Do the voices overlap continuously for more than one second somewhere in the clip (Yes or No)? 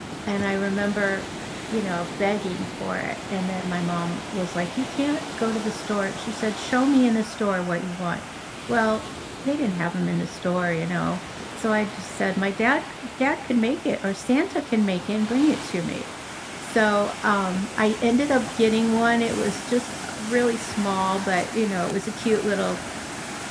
No